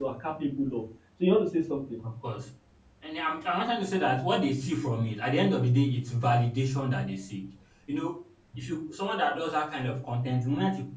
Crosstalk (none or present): none